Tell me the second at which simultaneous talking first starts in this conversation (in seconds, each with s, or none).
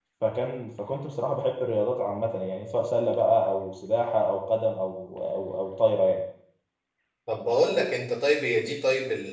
none